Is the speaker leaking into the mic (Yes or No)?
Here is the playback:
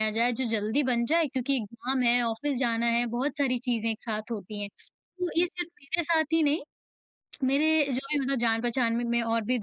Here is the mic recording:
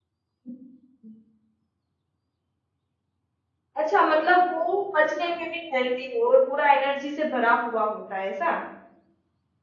No